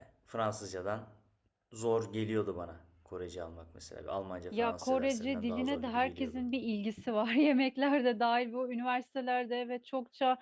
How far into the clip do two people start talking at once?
4.5 s

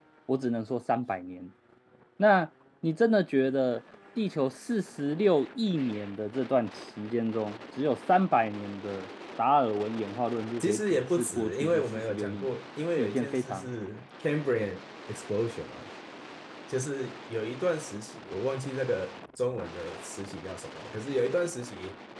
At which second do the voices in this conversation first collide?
10.6 s

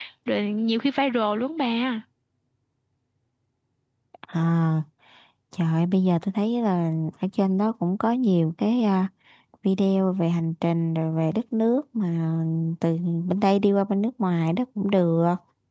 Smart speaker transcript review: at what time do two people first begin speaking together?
none

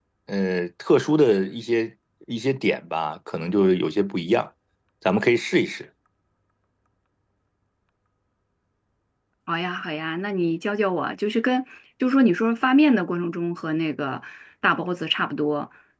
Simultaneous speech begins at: none

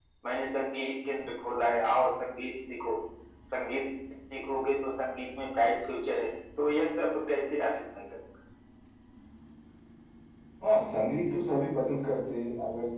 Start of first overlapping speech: none

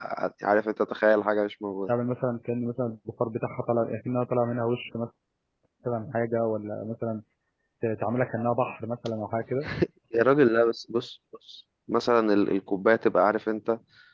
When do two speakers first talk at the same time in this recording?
none

